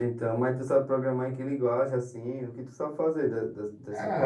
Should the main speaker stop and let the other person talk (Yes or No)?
Yes